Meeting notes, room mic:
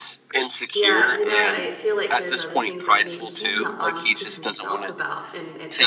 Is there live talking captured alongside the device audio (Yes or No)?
Yes